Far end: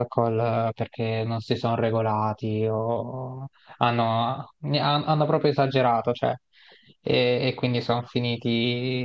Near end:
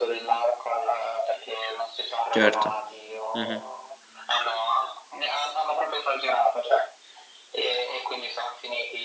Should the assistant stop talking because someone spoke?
Yes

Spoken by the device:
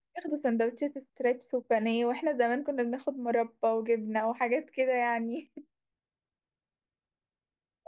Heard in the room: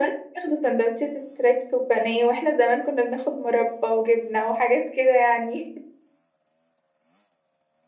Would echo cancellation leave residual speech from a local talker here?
No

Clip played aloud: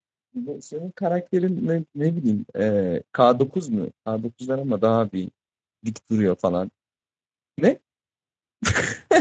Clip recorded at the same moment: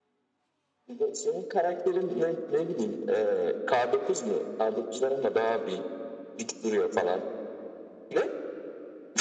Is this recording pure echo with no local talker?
Yes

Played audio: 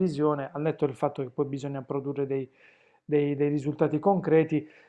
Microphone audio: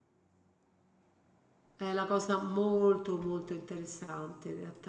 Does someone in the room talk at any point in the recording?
Yes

